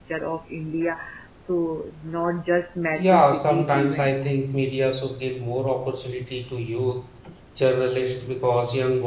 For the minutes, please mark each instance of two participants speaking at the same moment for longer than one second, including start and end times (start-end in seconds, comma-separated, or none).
3.0-4.3